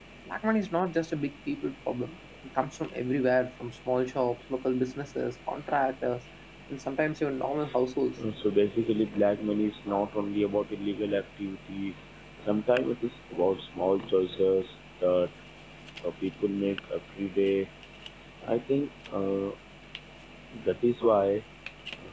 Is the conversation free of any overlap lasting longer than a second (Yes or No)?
Yes